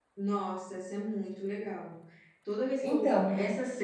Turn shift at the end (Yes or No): No